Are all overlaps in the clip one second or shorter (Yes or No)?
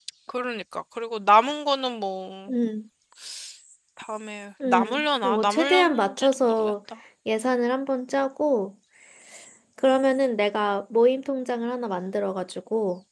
No